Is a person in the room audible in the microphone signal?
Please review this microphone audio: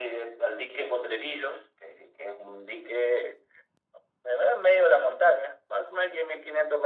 No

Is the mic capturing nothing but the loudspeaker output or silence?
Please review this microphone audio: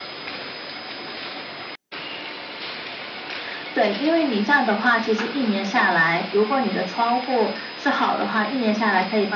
Yes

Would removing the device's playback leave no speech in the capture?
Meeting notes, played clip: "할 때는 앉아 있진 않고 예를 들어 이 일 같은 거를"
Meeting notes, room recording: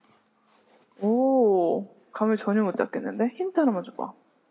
No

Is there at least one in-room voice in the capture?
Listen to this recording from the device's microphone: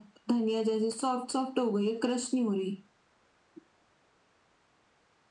No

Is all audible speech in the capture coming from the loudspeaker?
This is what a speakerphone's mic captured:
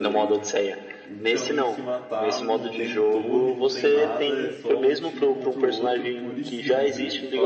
No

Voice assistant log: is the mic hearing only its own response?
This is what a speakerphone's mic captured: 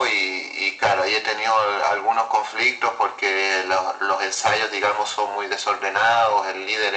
Yes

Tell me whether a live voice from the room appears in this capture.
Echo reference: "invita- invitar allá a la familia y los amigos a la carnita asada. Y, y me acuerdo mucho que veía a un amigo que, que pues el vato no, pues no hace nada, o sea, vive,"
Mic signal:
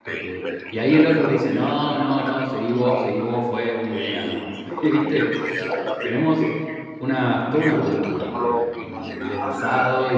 Yes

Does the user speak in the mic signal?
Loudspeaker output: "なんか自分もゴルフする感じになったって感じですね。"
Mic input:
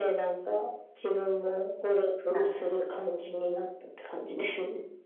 Yes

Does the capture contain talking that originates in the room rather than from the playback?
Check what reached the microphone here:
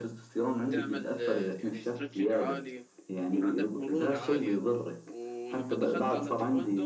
Yes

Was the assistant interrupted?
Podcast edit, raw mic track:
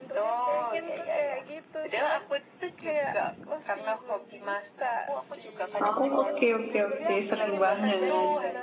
Yes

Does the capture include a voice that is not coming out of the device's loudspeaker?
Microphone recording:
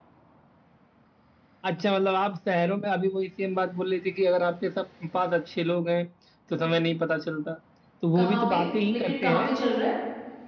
Yes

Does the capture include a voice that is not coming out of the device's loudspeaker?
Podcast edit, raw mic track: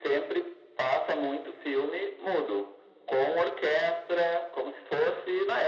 No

